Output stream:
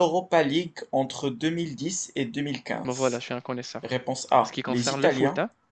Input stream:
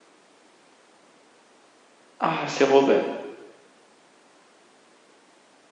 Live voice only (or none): Ah, c'est Robin.